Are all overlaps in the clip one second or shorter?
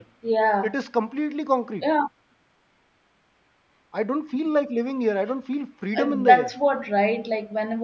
Yes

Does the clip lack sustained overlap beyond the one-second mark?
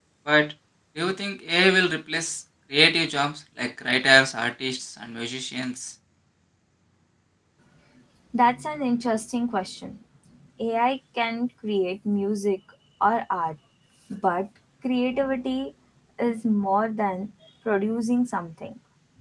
Yes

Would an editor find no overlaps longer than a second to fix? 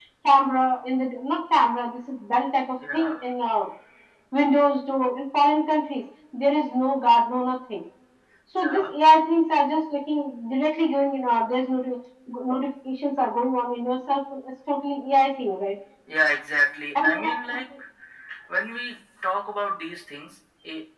Yes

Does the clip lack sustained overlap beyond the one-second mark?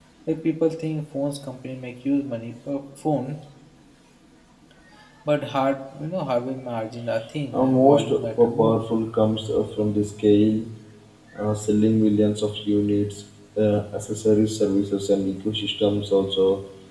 No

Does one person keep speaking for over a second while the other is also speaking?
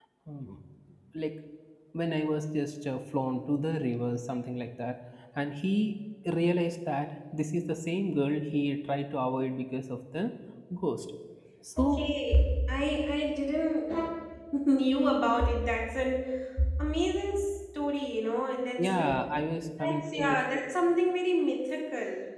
No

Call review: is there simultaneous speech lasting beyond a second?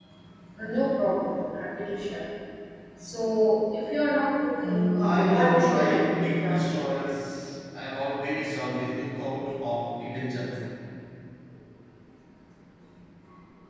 Yes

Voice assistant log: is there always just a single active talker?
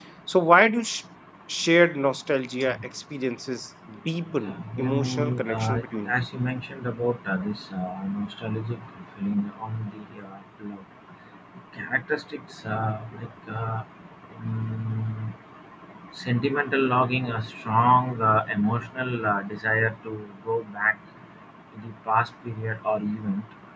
No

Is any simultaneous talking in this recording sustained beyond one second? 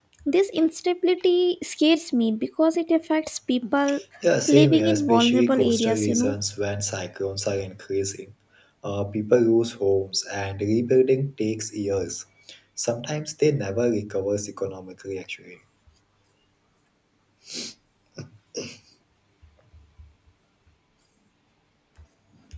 Yes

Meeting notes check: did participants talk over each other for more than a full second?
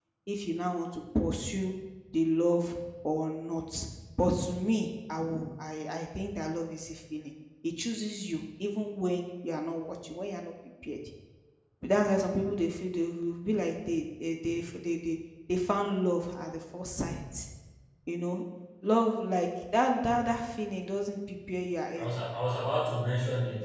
No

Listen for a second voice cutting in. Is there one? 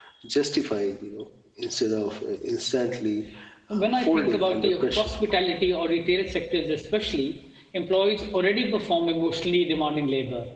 Yes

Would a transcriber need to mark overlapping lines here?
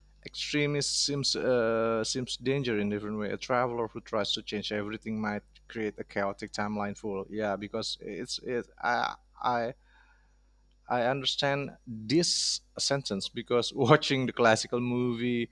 No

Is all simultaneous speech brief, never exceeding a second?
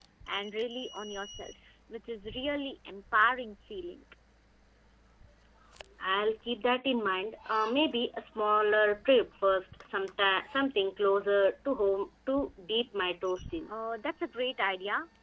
Yes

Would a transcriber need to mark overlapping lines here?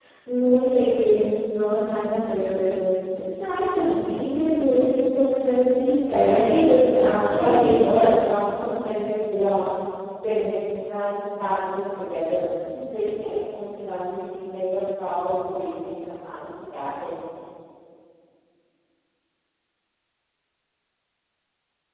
Yes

